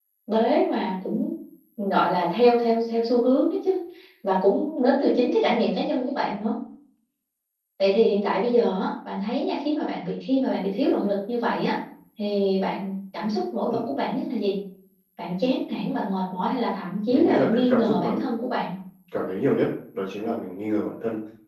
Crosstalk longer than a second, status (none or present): present